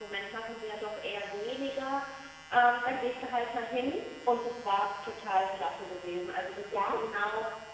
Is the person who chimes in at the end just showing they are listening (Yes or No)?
Yes